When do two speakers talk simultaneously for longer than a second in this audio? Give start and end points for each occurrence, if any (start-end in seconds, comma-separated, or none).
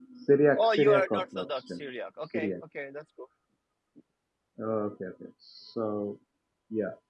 0.6-1.9